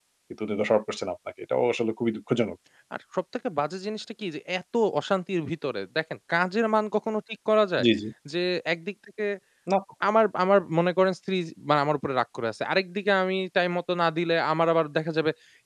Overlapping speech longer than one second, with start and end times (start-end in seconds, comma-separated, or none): none